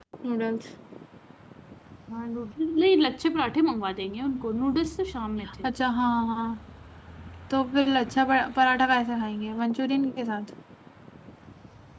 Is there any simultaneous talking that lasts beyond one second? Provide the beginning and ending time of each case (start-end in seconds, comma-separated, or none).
none